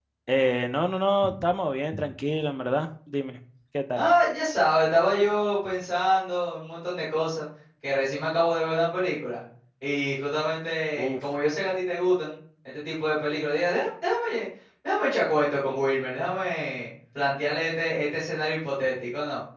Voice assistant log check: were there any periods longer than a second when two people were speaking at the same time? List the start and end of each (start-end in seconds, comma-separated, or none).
none